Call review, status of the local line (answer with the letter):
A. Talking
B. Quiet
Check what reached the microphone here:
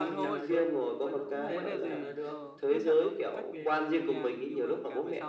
A